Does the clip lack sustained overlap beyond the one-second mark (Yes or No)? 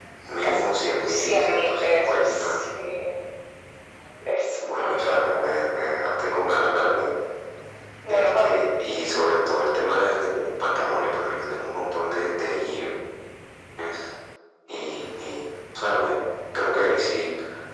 No